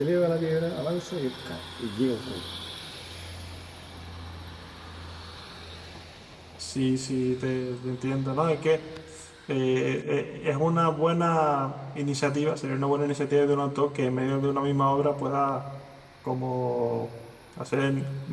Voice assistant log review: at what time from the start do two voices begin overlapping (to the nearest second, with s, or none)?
none